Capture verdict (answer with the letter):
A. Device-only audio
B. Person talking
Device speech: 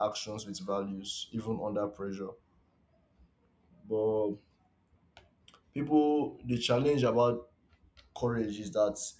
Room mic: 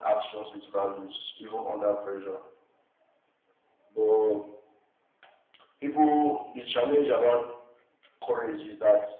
A